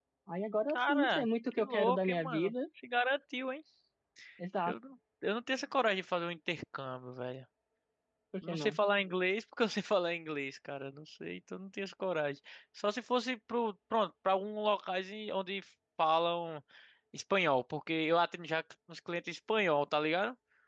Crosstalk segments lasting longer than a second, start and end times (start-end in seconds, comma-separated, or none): 0.7-2.5